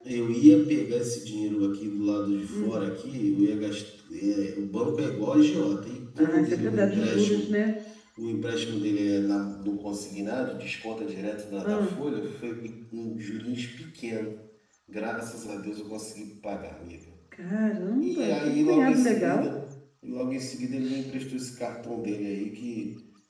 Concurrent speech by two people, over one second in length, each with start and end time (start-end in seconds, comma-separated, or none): 6.2-7.5, 18.0-19.5